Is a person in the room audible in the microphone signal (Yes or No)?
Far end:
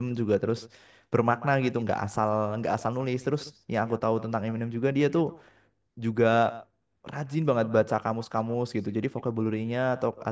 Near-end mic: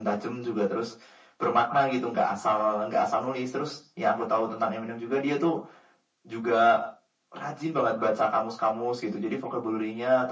No